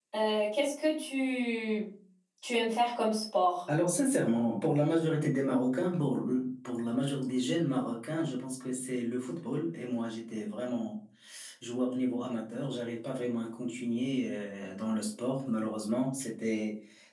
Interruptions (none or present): none